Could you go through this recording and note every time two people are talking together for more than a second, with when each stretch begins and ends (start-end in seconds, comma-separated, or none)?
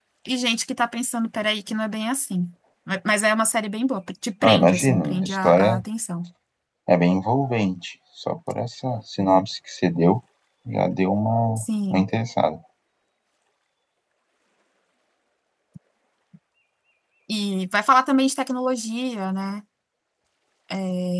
4.4-5.8